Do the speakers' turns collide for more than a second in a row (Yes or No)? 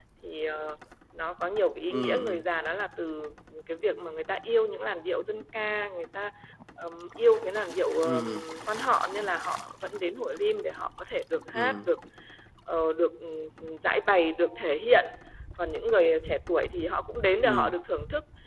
No